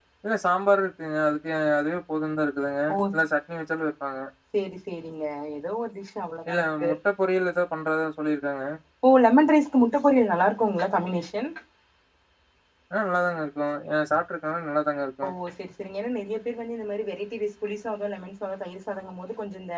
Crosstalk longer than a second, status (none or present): none